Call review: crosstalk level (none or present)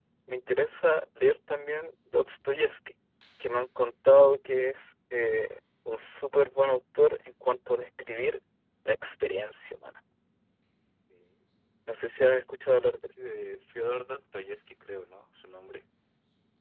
none